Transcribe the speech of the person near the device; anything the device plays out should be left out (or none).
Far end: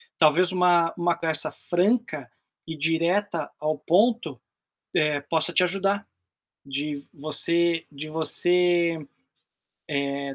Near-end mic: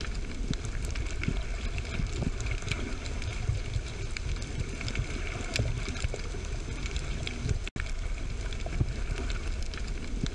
none